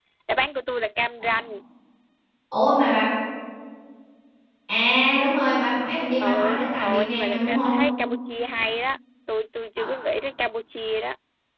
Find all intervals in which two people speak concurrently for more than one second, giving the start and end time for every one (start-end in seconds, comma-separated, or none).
6.2-7.8